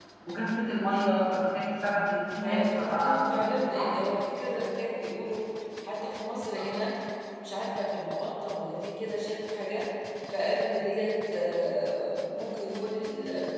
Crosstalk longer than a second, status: present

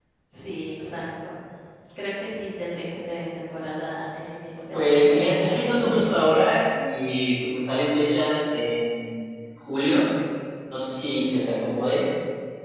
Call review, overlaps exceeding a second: present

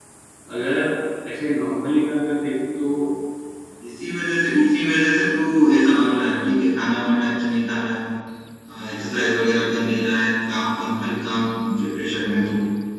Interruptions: none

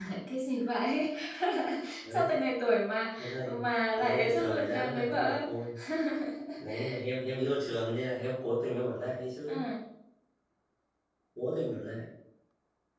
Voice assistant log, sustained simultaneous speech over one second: present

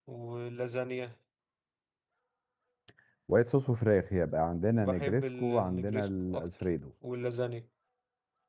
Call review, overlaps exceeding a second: present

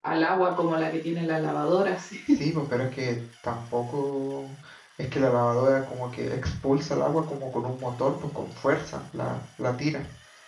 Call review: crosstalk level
none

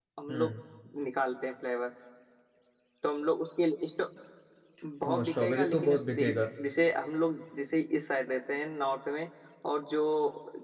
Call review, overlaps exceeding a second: present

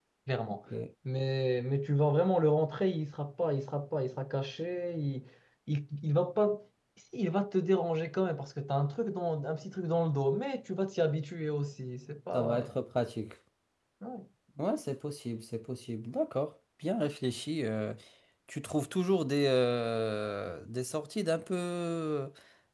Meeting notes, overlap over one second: none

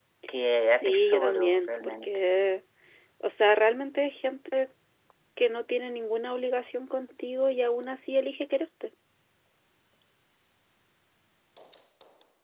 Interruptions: present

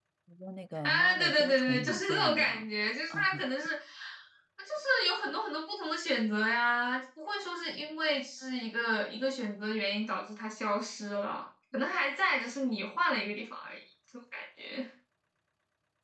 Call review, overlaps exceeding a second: present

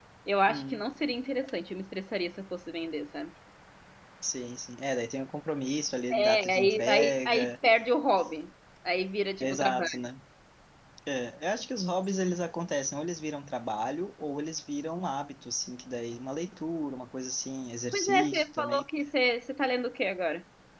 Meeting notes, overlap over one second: present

